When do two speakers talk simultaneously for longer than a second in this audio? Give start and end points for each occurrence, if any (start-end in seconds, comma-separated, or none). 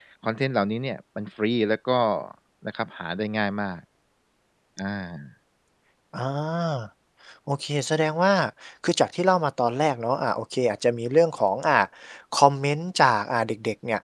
none